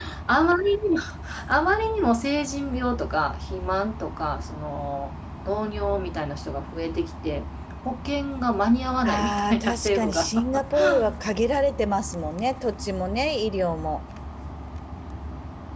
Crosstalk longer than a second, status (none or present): present